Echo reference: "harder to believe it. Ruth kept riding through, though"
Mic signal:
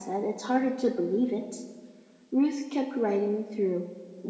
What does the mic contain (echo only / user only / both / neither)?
echo only